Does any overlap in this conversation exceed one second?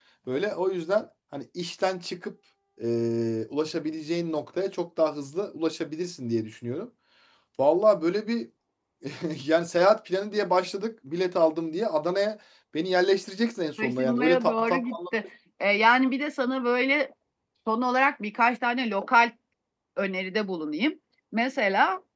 Yes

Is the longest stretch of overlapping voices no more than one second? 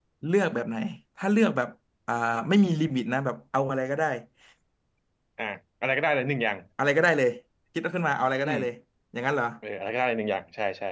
Yes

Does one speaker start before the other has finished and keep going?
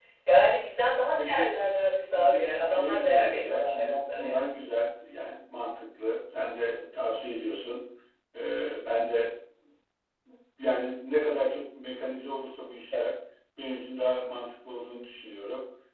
Yes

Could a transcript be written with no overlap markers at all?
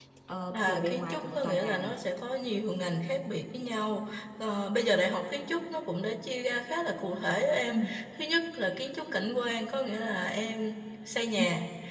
No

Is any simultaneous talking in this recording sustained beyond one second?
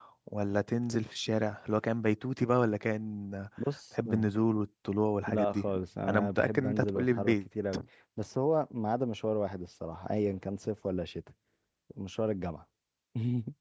Yes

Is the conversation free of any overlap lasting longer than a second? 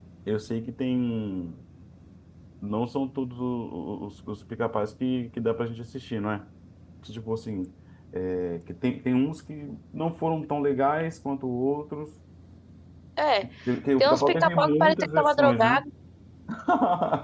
No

